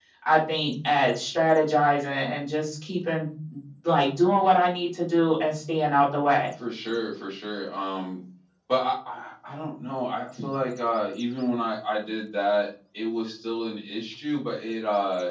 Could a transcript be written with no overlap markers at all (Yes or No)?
Yes